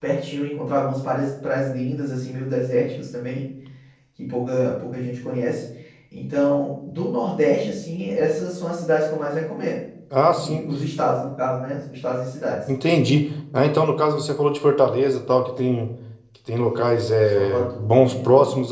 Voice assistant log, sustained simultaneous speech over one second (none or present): present